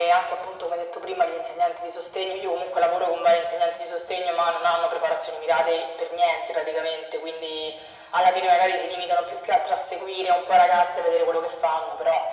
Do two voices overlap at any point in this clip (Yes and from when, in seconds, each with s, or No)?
No